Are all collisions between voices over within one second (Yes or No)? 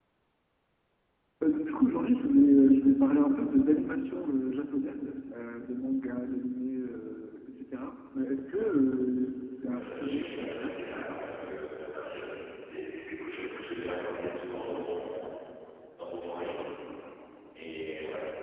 No